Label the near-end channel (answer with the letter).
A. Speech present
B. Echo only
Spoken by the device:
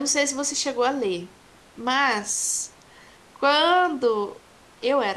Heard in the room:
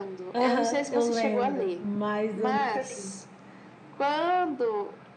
A